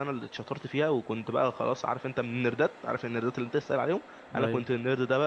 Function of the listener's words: listening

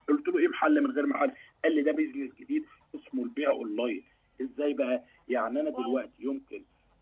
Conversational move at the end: listening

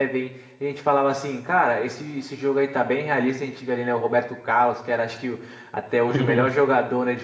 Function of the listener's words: listening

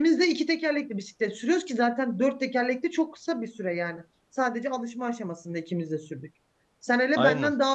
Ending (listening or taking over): listening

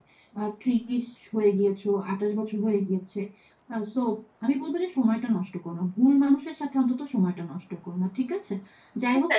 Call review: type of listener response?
listening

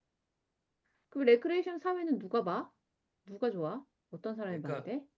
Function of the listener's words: taking over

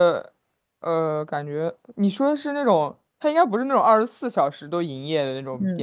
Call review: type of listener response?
taking over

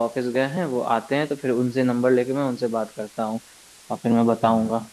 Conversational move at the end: listening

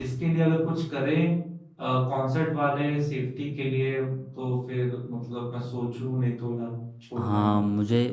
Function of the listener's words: taking over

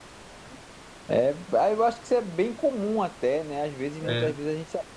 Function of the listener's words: listening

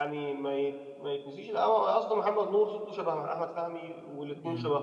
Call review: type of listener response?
listening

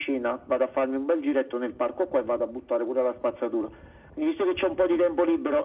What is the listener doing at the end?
listening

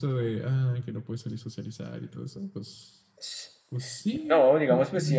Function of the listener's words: taking over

